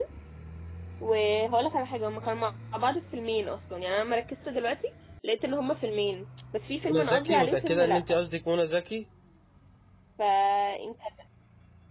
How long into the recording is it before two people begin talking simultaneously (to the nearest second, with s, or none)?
7 s